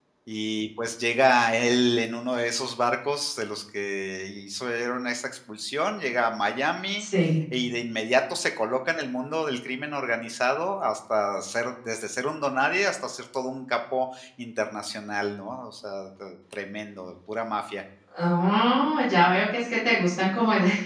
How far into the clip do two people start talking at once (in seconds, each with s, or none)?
none